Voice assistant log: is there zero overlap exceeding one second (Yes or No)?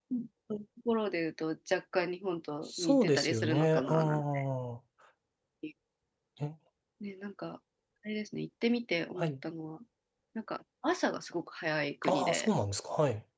No